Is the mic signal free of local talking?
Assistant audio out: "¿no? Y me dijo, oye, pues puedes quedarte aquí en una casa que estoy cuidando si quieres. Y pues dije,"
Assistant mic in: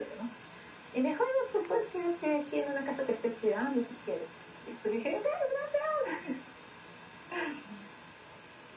Yes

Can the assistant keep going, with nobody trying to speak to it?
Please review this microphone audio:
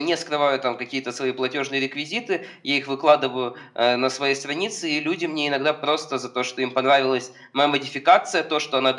Yes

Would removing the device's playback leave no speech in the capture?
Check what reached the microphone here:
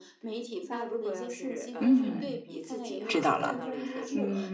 No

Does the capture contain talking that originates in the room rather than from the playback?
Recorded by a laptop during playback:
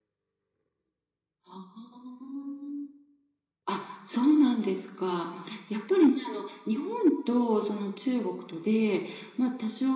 Yes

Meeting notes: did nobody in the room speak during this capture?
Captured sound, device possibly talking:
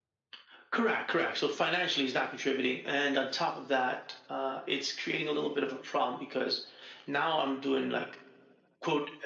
Yes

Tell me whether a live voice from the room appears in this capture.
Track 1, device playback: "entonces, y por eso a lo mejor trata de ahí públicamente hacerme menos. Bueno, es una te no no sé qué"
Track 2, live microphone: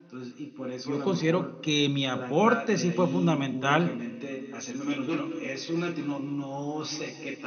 Yes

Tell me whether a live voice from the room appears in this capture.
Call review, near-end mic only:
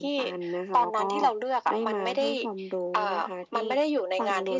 No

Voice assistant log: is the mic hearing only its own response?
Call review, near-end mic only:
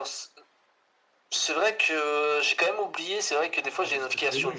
No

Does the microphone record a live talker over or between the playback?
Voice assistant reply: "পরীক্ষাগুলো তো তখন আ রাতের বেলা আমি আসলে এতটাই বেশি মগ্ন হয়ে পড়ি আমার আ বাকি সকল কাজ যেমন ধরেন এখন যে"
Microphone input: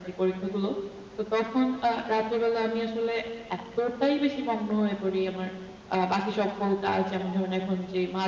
No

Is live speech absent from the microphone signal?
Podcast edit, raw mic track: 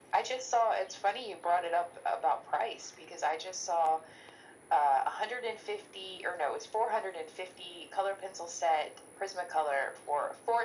Yes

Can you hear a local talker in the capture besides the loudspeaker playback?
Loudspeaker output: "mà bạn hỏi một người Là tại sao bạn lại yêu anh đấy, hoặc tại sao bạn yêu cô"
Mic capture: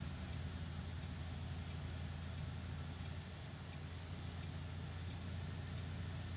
No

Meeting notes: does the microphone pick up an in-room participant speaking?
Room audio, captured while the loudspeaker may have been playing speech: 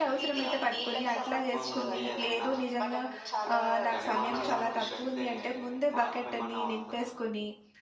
Yes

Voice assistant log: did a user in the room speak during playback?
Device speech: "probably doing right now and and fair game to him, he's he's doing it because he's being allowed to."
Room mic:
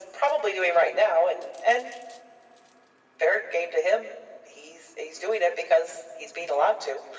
No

